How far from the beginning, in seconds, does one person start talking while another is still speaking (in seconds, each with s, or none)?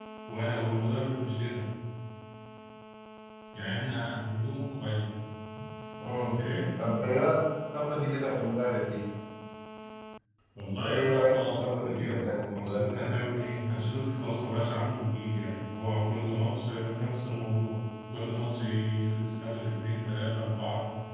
10.8 s